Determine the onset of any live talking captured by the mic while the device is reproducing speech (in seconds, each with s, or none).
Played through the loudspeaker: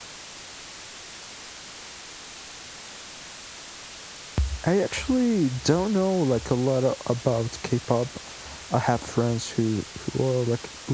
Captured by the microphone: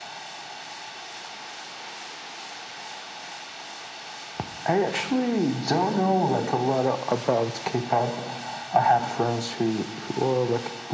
none